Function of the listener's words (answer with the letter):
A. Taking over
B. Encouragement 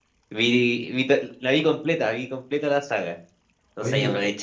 B